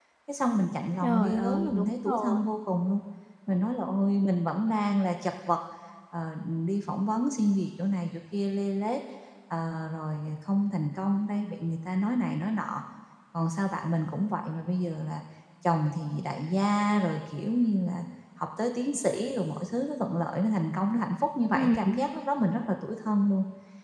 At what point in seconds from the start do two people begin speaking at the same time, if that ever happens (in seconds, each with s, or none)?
1.0 s